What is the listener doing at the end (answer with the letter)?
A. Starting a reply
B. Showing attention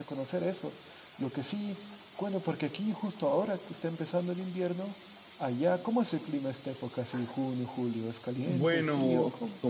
A